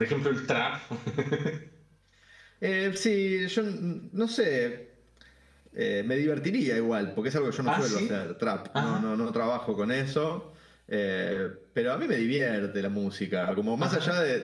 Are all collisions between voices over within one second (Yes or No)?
Yes